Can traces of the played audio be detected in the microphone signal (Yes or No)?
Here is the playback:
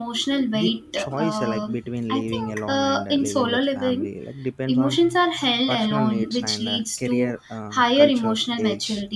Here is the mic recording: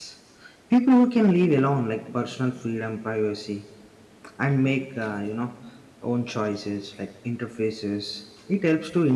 No